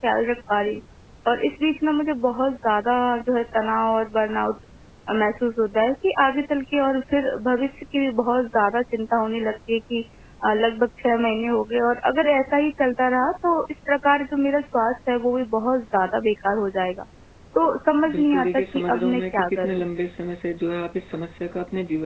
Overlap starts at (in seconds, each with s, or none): 18.1 s